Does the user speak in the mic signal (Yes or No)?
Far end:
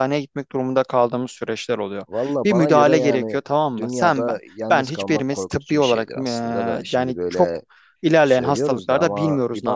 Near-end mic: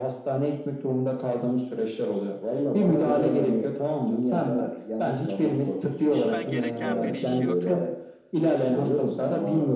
Yes